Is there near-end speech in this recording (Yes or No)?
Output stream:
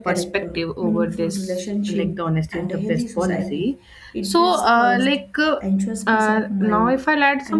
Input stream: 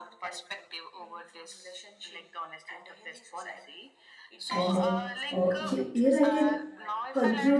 Yes